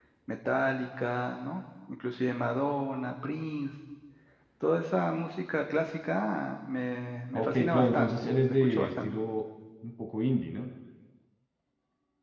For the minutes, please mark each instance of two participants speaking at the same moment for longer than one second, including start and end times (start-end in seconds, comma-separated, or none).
7.3-9.2